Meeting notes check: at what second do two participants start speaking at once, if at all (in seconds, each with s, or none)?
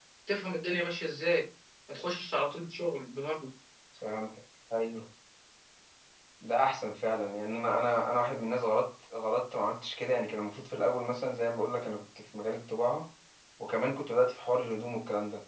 none